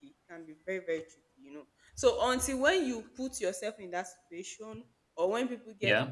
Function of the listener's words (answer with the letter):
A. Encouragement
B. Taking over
A